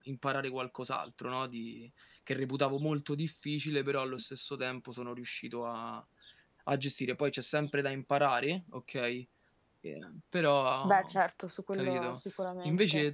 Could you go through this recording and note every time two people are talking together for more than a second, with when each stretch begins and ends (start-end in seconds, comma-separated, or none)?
none